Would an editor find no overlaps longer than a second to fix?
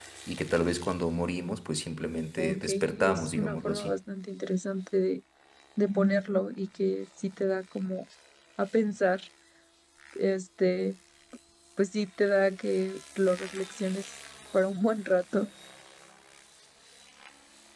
No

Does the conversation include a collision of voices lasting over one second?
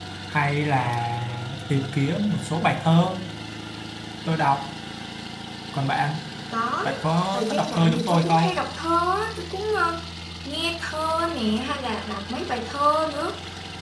Yes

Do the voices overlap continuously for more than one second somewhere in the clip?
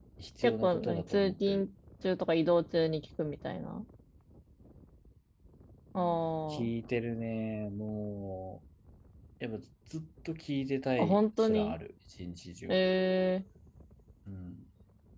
Yes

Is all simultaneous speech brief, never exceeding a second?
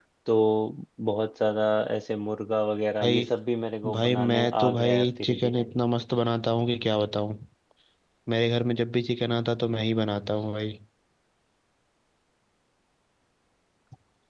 No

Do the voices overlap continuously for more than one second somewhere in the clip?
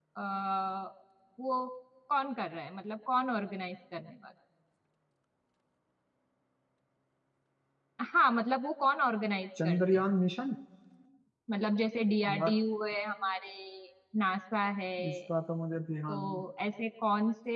No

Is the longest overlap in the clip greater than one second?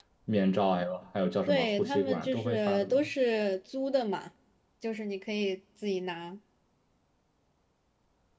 Yes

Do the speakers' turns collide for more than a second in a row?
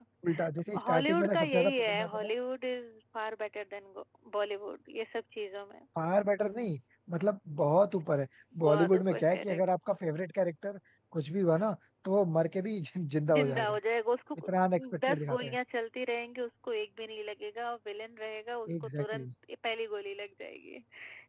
Yes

